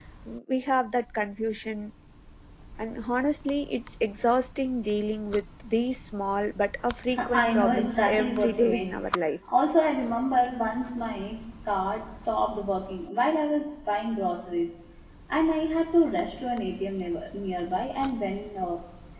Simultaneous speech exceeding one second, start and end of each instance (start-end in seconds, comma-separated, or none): 7.3-8.9